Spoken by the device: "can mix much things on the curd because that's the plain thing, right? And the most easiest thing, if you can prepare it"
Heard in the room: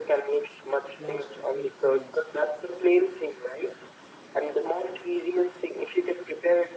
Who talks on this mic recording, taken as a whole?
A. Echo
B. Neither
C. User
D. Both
D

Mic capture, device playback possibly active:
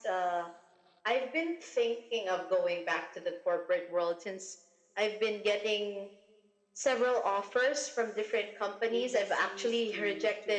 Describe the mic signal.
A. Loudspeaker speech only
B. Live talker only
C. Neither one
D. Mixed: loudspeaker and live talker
D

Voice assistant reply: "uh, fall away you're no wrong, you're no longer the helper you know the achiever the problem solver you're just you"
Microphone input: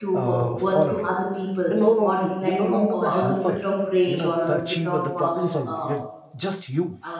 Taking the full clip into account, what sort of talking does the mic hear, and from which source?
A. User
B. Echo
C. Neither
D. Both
D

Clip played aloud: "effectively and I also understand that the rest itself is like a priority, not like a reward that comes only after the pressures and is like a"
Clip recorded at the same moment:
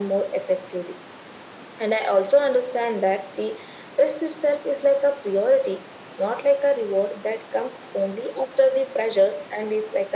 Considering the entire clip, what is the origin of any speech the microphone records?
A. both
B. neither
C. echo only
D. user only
C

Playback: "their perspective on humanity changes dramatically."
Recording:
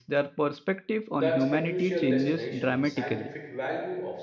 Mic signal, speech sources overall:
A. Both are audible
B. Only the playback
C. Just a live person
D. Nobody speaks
A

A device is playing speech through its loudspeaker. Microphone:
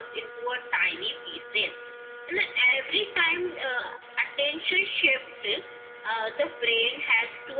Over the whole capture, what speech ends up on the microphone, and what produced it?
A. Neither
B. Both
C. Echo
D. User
C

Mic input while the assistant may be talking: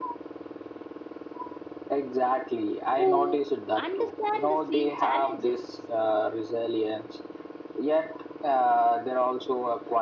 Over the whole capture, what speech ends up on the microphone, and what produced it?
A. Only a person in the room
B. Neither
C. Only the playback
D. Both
D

